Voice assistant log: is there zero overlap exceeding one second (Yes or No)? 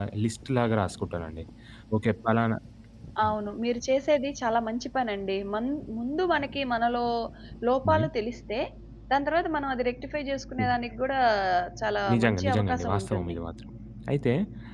No